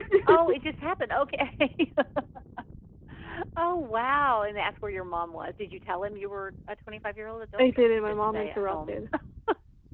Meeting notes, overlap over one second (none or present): present